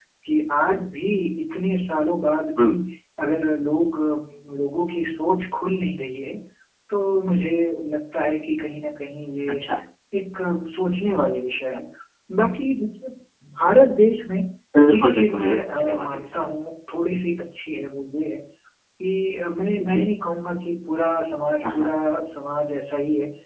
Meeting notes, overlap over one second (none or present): present